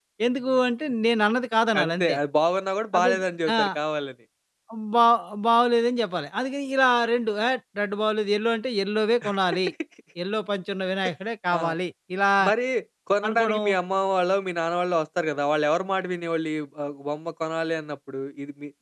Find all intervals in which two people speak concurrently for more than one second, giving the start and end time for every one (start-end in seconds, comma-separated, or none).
none